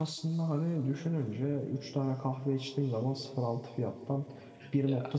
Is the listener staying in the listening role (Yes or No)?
Yes